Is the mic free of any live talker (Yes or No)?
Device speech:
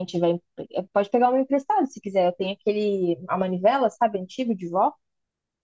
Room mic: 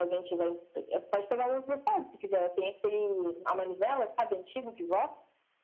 Yes